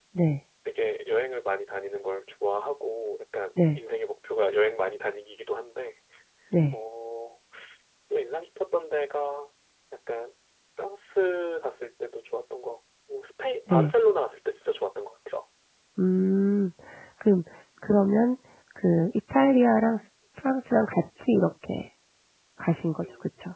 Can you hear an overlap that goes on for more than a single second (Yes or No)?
No